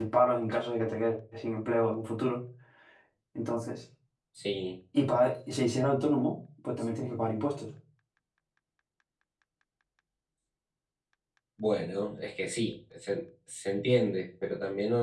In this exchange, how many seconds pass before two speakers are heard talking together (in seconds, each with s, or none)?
none